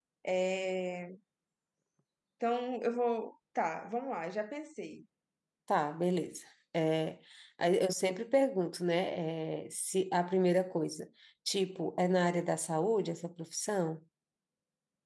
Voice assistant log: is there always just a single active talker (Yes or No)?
Yes